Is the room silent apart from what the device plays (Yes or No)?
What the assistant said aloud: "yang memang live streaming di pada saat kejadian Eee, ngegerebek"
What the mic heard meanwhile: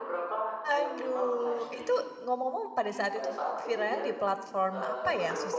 No